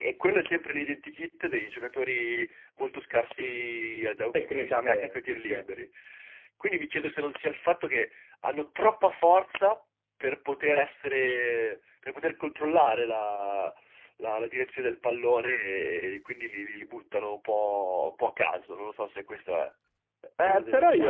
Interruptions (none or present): present